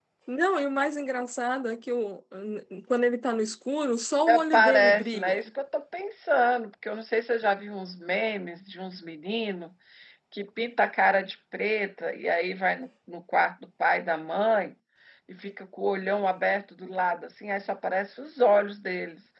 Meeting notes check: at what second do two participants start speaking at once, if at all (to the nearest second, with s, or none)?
4 s